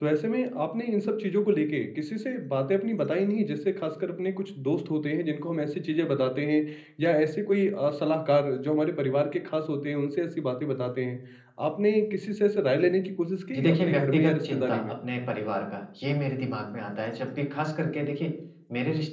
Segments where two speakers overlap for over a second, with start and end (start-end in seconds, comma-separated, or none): 13.5-14.8